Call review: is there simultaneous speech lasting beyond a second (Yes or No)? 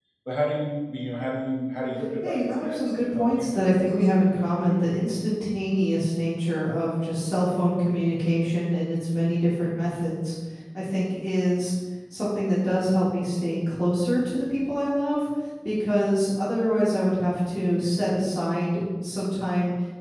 Yes